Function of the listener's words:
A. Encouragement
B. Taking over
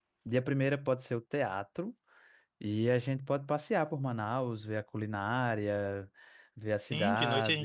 B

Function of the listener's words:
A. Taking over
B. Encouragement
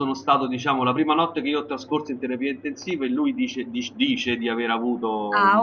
A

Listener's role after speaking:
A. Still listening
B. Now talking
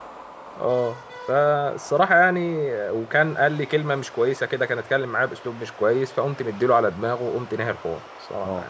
B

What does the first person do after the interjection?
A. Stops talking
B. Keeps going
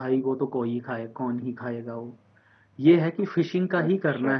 B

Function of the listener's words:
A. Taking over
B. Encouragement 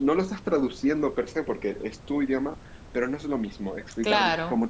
B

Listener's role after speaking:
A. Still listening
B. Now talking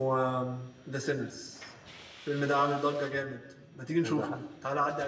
A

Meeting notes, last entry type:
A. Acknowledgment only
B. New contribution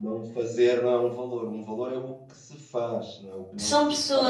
B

